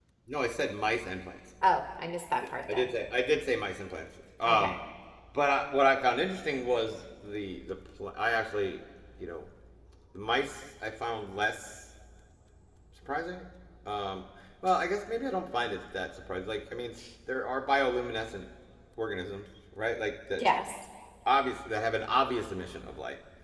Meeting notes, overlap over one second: none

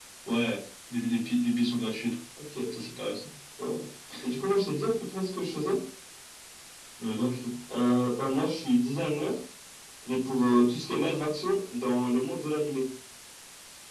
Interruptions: none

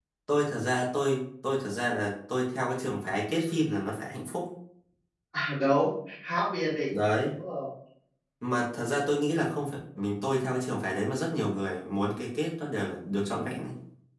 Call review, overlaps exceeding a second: none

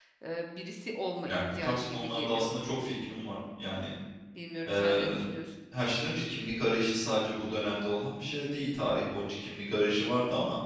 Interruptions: present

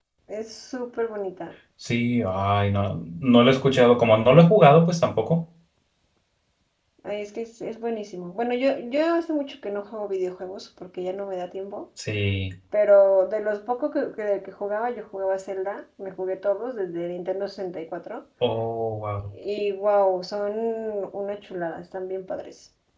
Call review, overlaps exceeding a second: none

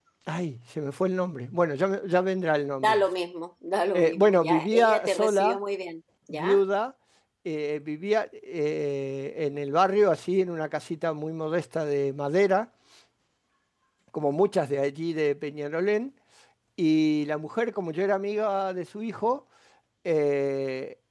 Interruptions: present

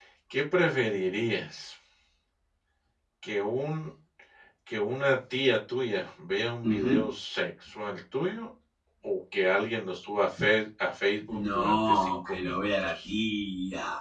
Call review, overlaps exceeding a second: present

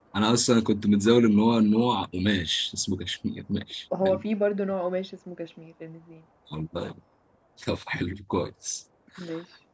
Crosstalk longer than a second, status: none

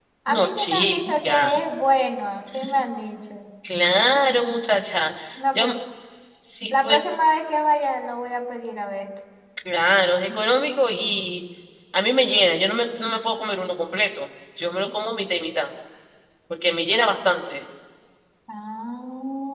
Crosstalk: present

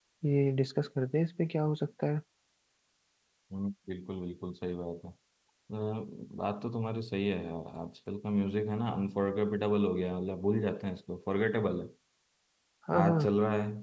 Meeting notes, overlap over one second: none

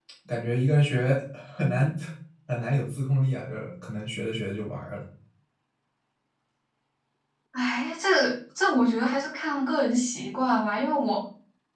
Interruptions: none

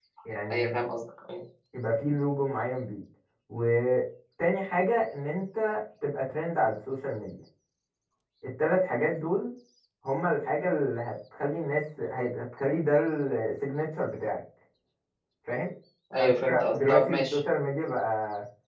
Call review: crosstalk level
present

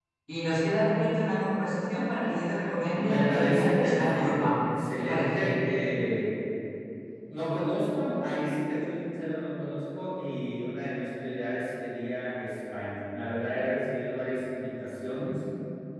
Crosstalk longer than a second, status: present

